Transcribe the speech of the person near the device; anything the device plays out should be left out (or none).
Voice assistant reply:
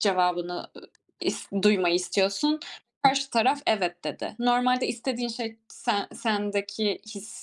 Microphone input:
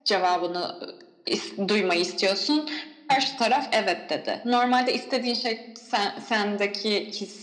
none